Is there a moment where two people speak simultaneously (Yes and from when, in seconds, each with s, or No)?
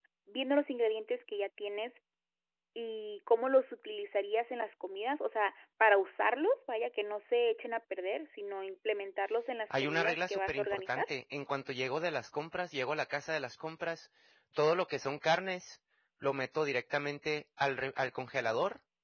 Yes, from 9.7 s